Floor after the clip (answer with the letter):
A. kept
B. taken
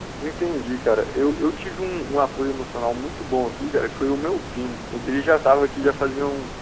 A